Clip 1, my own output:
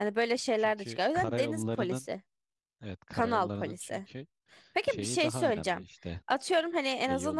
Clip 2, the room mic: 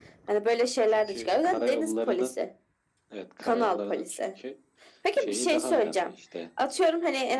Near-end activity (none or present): none